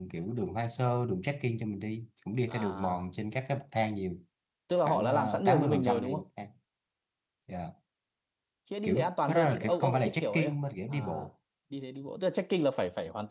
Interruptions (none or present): present